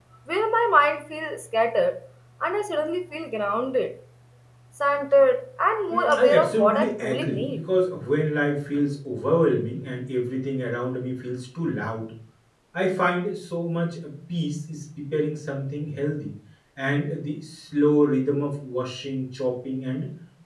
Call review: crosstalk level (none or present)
present